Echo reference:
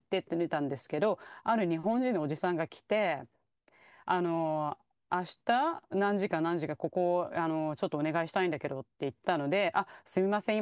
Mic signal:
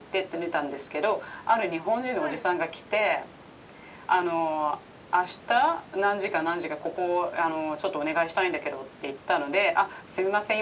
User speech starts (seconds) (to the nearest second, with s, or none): 2 s